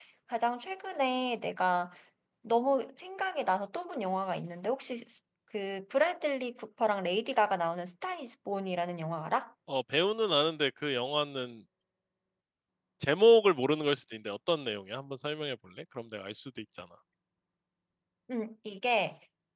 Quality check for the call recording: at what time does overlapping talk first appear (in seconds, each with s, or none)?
none